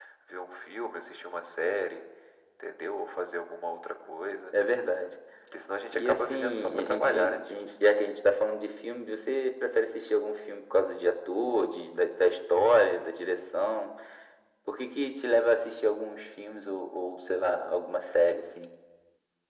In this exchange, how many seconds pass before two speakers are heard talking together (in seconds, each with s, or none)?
5.9 s